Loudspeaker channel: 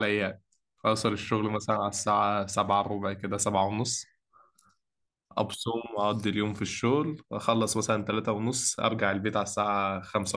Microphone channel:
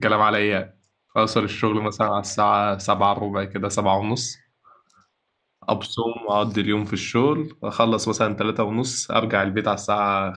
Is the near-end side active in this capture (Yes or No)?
No